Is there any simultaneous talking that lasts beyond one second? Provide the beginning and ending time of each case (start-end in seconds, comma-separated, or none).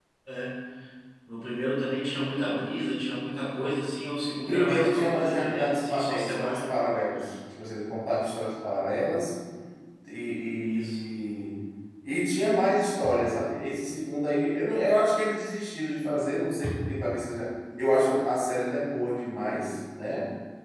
4.3-6.7